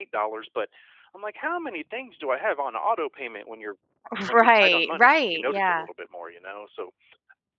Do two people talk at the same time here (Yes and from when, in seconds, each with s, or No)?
Yes, from 4.3 s